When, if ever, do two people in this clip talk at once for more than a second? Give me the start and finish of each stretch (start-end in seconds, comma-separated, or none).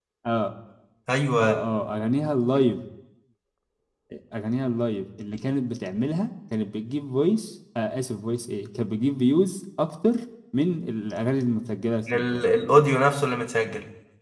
none